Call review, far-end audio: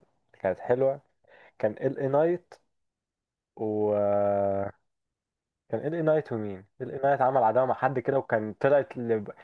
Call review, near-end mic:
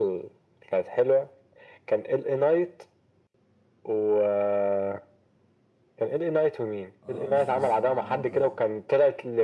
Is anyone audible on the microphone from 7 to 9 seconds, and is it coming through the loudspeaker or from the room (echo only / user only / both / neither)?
both